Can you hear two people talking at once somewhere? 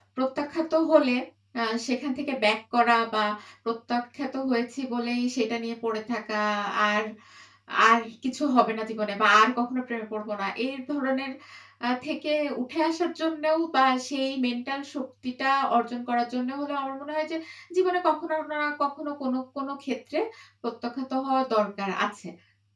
No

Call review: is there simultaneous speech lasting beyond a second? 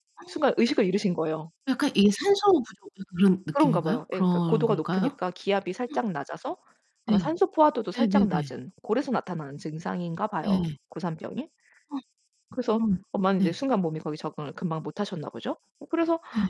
Yes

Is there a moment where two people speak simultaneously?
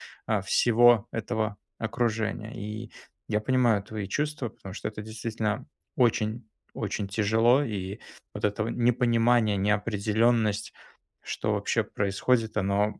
No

